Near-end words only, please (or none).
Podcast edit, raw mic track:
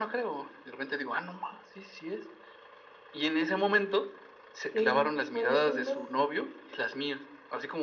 ¿Qué cuáles son los